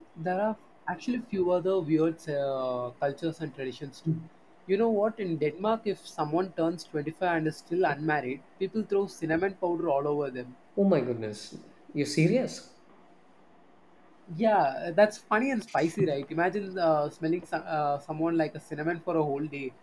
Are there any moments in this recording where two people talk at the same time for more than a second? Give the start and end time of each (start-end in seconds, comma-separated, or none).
none